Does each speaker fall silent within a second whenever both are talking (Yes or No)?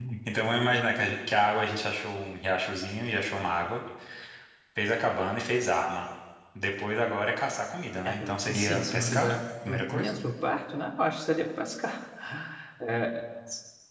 No